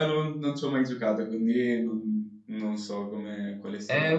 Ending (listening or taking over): taking over